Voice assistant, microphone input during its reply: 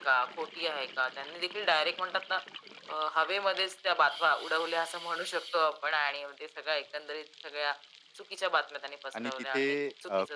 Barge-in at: 9.2 s

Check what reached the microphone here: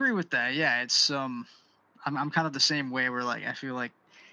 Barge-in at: none

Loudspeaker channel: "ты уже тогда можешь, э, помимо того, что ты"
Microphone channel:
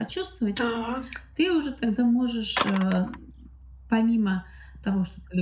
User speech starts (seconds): 0.5 s

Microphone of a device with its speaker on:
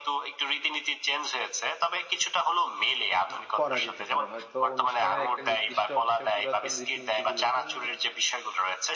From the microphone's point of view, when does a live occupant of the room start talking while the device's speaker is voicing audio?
3.3 s

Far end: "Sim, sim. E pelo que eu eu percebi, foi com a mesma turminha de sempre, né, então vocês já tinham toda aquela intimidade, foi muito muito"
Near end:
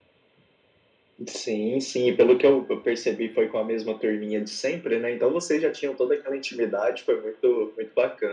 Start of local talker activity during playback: none

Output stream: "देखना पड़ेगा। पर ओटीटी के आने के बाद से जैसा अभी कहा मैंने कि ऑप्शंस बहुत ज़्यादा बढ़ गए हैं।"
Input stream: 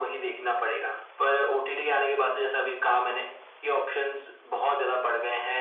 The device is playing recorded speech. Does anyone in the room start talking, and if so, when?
none

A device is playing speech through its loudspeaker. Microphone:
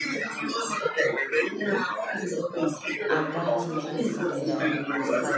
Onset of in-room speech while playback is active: 3.1 s

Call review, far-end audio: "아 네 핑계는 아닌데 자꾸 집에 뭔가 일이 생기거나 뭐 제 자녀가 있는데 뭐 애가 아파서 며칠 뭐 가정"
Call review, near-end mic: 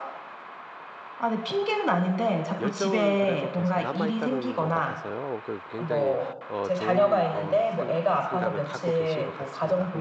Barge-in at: 2.6 s

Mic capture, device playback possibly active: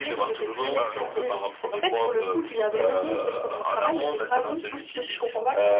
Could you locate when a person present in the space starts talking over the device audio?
0.5 s

